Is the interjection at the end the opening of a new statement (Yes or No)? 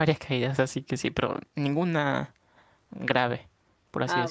Yes